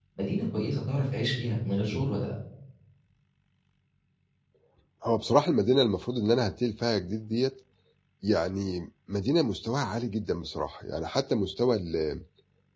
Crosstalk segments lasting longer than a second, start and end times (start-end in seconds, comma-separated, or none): none